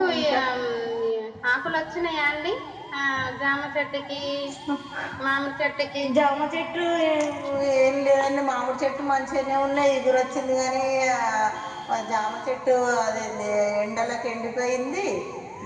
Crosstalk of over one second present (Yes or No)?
No